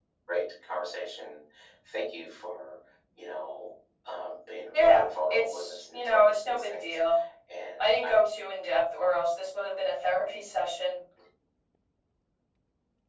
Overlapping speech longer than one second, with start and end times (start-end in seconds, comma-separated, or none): 4.7-6.9